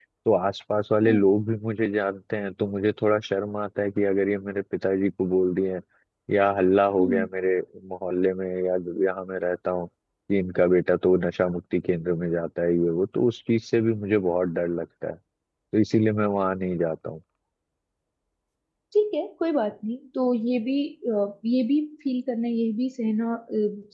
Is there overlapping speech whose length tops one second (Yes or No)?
No